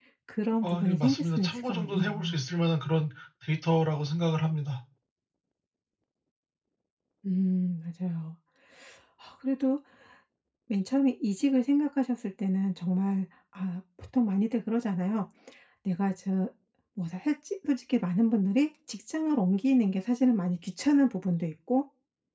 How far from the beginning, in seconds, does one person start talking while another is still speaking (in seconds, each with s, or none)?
0.6 s